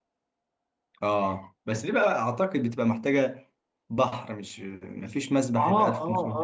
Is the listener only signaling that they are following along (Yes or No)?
No